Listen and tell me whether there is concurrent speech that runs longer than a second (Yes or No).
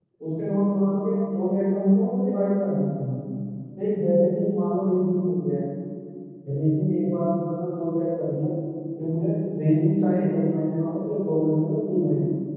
No